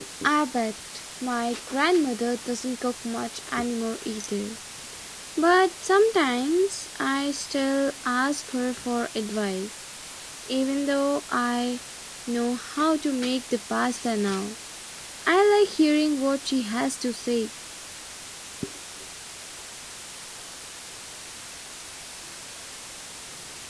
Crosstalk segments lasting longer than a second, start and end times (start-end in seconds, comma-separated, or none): none